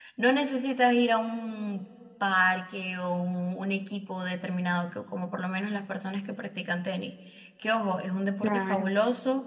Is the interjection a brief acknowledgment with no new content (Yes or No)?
Yes